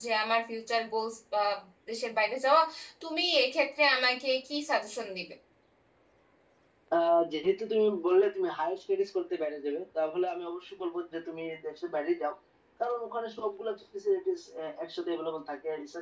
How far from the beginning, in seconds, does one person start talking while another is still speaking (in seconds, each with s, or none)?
none